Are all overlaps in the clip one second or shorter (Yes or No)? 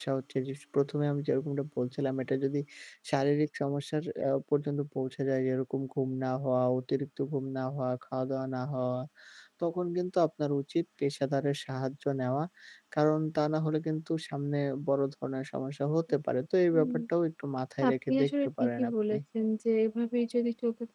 No